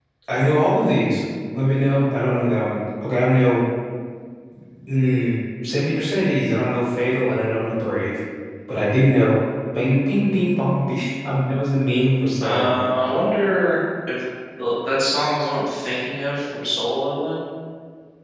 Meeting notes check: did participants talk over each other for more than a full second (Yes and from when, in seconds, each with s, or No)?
No